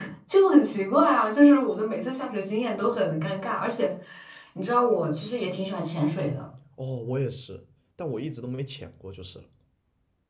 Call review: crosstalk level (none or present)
none